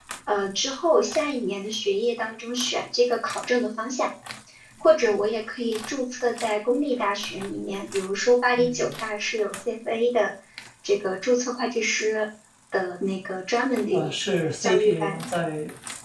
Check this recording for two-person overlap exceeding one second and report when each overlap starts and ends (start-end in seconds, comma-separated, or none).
13.9-15.3